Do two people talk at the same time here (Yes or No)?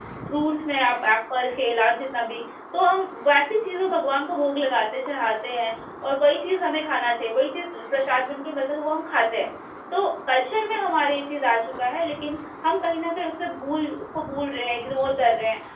No